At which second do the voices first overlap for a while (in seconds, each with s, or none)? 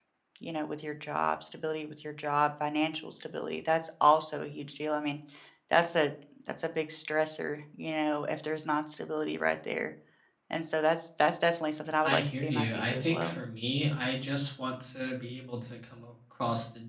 12.0 s